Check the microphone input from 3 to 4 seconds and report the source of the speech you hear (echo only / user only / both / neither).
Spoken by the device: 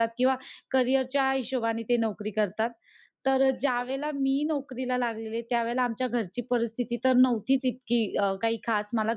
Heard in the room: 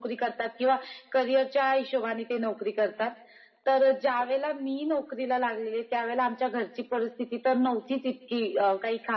echo only